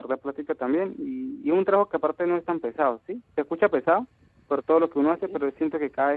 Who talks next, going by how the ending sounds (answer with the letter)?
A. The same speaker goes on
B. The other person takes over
A